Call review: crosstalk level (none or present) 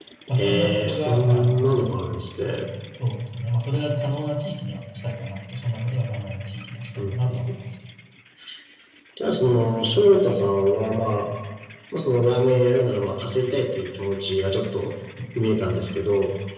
present